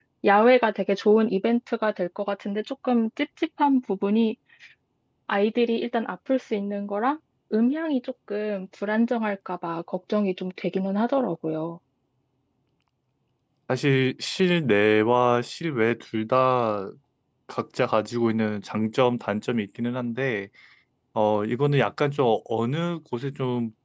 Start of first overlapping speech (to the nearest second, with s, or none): none